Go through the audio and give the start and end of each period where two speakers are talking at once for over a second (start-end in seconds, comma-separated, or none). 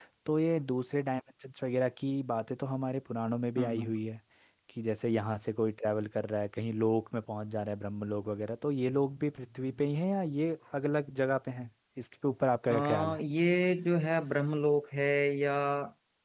none